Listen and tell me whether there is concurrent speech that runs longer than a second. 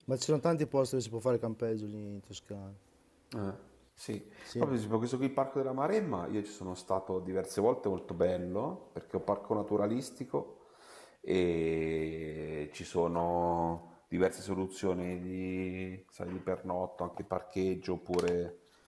No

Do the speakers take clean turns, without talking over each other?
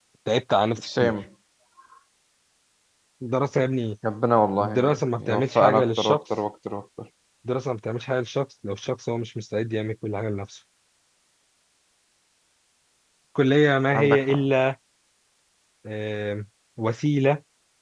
No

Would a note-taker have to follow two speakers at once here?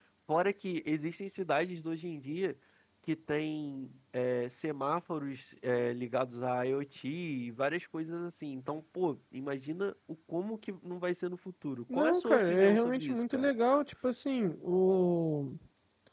Yes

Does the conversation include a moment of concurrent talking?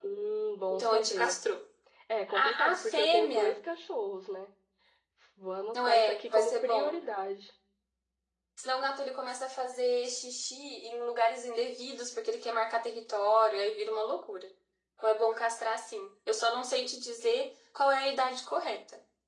Yes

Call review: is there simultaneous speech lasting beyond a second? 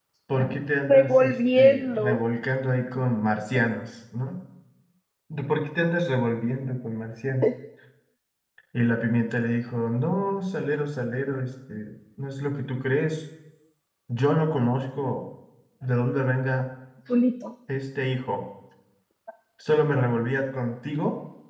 Yes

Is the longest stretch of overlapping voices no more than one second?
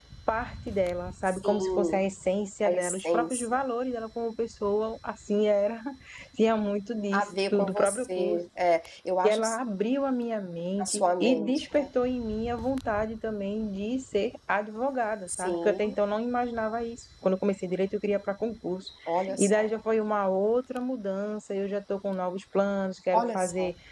No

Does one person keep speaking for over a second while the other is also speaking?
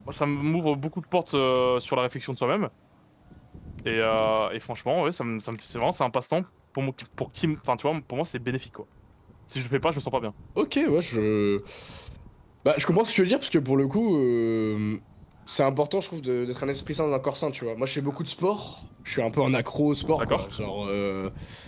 No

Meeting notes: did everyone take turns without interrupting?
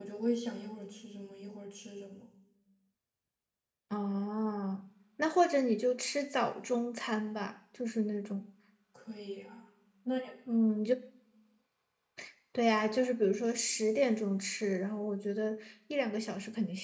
Yes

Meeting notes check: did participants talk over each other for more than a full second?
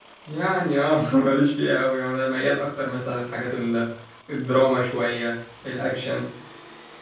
No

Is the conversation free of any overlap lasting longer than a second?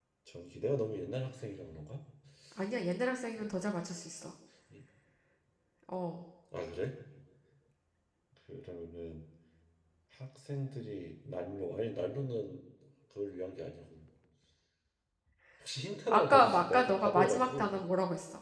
No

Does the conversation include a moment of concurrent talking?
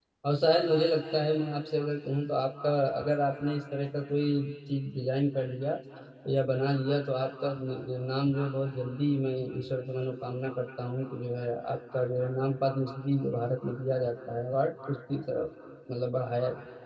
No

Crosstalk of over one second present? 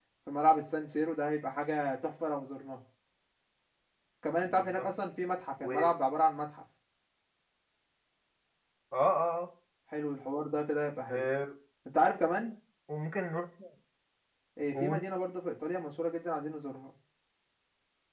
No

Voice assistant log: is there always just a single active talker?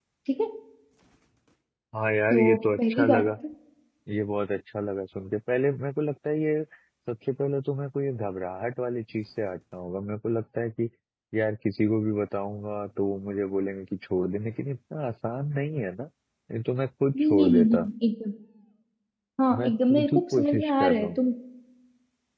No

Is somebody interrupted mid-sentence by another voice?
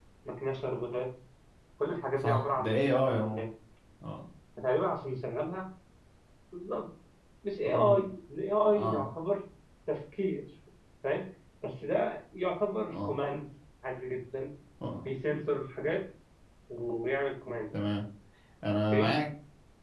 Yes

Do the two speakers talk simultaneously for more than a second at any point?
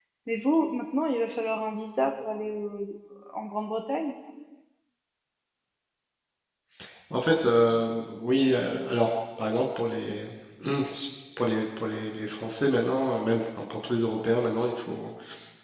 No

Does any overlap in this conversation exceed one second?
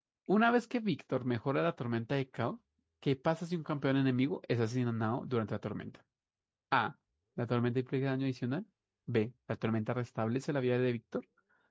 No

